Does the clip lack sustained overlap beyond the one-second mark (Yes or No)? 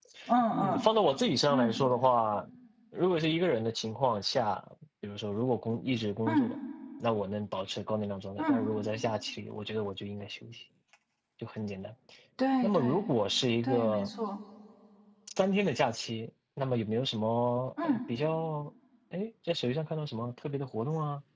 Yes